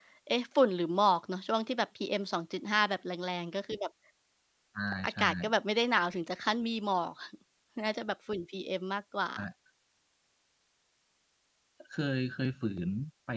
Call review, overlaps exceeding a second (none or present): none